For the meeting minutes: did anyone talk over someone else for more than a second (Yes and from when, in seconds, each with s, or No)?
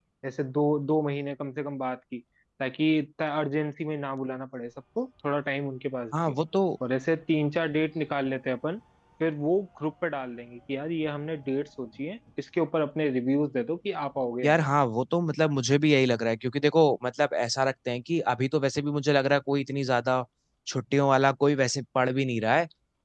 No